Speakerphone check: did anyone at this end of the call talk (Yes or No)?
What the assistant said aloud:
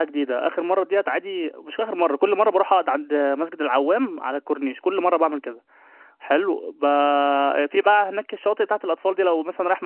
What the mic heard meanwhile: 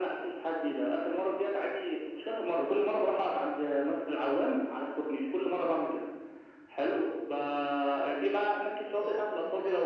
Yes